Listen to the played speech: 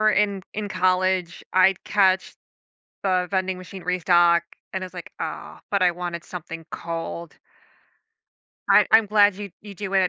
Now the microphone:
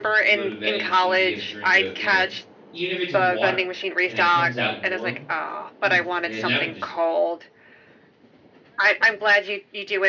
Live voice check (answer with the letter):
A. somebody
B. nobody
A